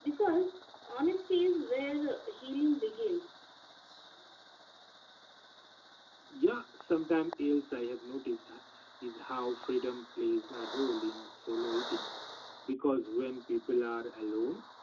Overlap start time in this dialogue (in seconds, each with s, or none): none